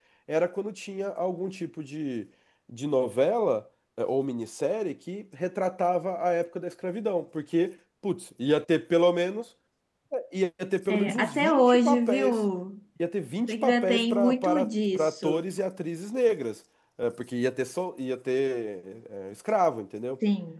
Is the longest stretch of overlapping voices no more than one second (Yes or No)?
No